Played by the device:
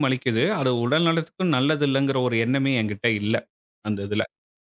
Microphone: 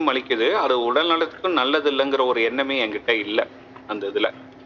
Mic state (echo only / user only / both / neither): echo only